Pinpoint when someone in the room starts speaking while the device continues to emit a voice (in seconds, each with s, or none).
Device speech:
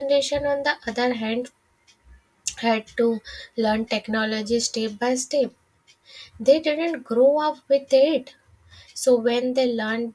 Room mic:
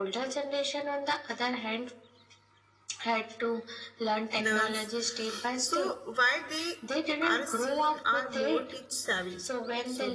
4.4 s